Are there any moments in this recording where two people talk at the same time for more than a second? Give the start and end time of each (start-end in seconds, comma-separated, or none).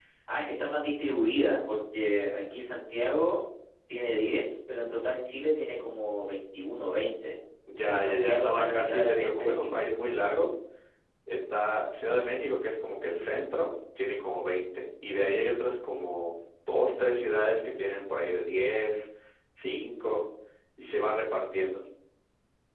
7.8-9.8